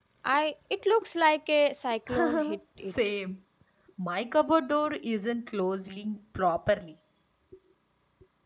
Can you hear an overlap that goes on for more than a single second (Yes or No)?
No